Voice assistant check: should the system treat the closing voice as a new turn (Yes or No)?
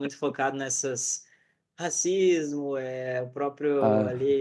No